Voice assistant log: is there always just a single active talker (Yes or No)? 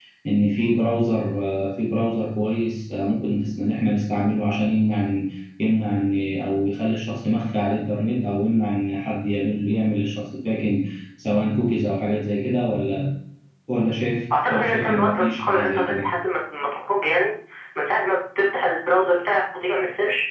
No